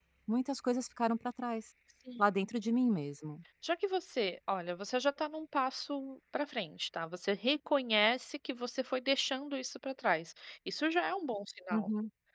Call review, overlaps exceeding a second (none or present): none